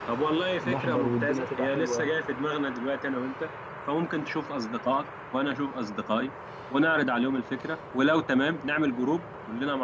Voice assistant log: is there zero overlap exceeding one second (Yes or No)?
No